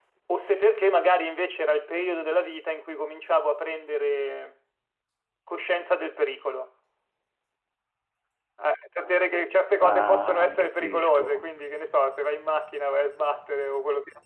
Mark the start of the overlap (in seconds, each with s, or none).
9.8 s